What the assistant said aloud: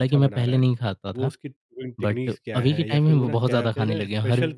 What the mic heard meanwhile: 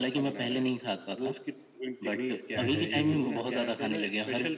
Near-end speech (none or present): present